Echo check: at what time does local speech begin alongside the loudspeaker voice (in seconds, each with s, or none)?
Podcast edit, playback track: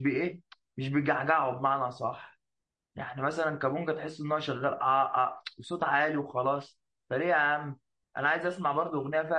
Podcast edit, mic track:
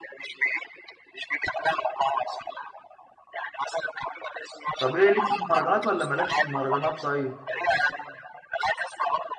4.8 s